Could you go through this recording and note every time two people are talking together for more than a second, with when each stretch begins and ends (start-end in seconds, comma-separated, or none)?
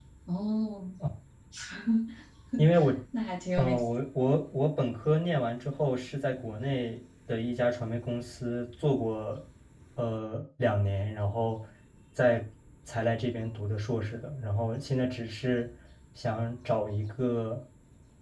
none